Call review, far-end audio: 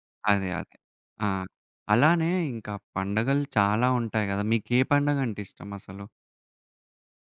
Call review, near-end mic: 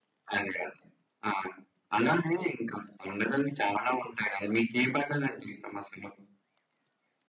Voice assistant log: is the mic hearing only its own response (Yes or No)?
Yes